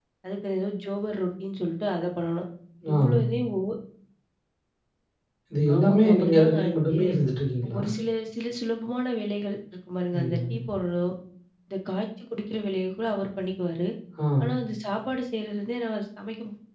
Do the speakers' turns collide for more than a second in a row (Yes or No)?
Yes